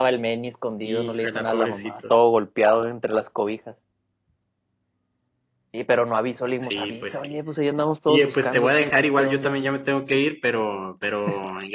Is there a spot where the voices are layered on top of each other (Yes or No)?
Yes